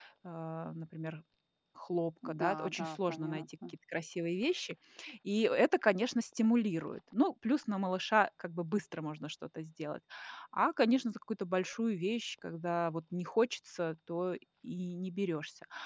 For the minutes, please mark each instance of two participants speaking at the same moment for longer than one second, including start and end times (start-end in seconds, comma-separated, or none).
2.2-3.5